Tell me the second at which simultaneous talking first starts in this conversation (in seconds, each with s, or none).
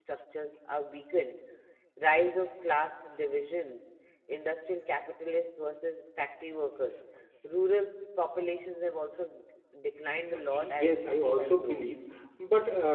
10.3 s